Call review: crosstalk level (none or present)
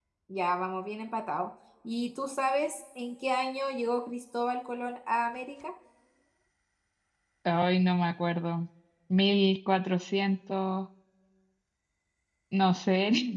none